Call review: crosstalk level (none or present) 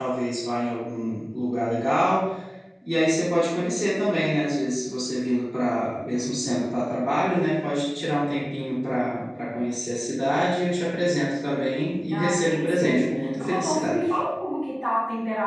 present